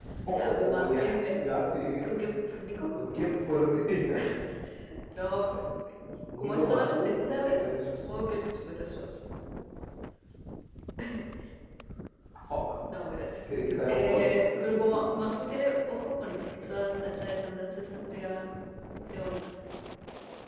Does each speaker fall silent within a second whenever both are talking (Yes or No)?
No